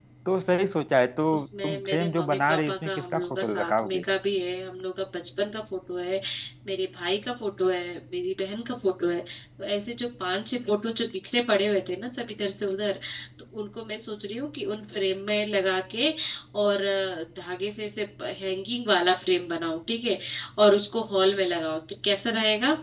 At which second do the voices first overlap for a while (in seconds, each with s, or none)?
1.3 s